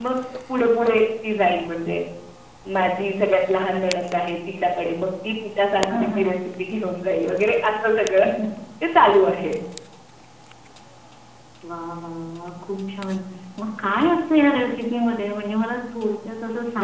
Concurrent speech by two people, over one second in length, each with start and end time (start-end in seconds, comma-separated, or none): none